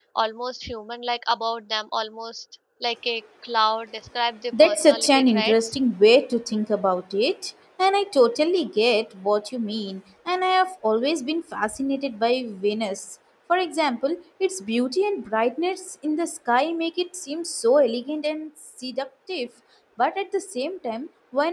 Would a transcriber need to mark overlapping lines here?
Yes, from 4.5 s

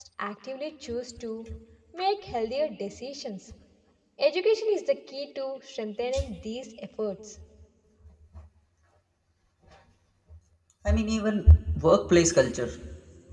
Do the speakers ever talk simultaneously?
No

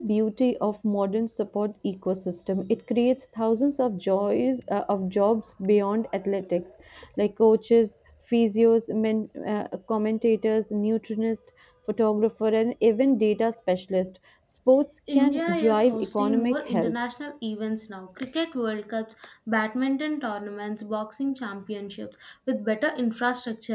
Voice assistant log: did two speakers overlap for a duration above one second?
Yes, from 15.1 s

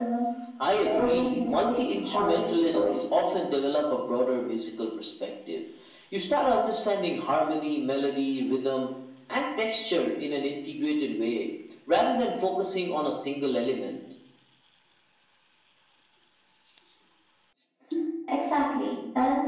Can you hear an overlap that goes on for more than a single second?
Yes, from 0.8 s

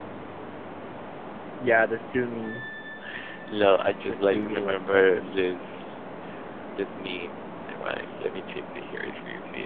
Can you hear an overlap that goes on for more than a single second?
Yes, from 4.1 s

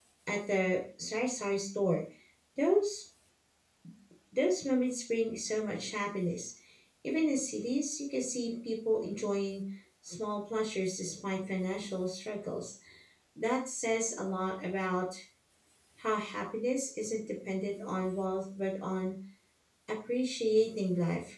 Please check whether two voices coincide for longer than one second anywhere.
No

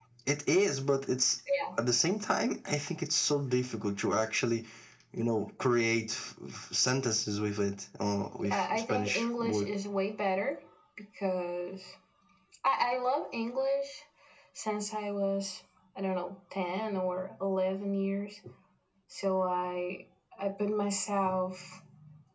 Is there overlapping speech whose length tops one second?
Yes, from 8.4 s

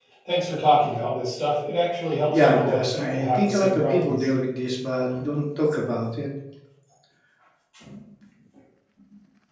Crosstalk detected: Yes, from 2.3 s

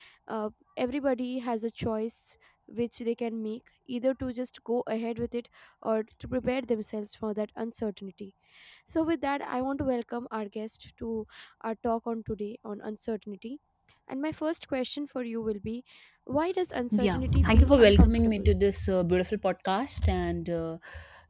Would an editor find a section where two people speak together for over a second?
Yes, from 17.0 s

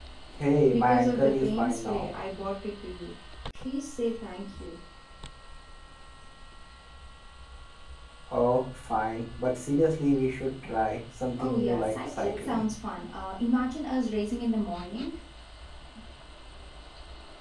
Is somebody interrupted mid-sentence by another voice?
Yes, from 0.7 s

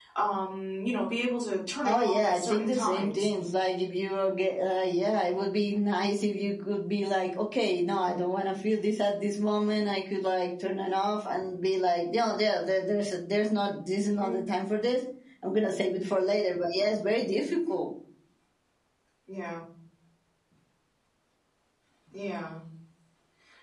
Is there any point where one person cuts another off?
Yes, from 1.8 s

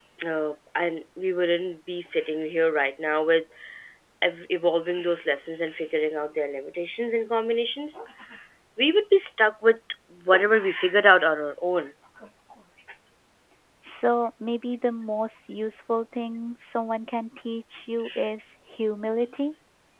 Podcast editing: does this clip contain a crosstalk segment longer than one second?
No

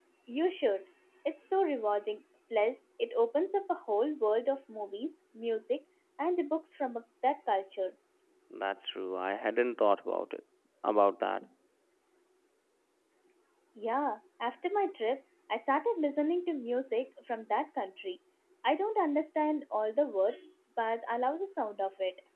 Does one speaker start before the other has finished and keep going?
No

